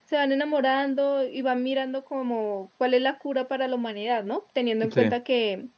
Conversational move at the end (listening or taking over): listening